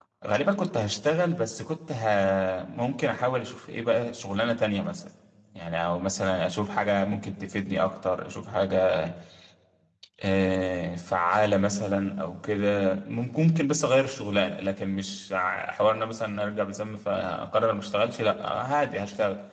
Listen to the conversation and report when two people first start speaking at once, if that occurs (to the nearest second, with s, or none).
none